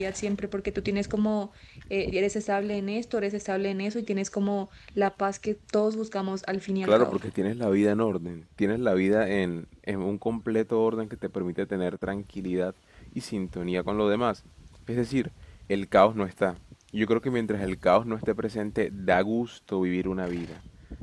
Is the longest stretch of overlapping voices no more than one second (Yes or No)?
Yes